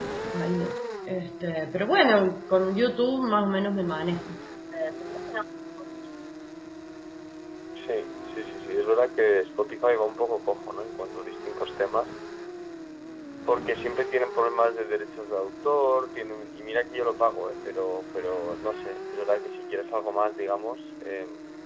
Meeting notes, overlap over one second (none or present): none